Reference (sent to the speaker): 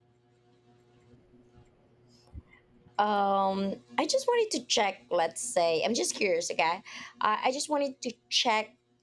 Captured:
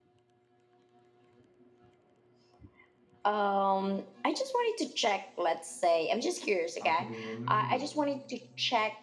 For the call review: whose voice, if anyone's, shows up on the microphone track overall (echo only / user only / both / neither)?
both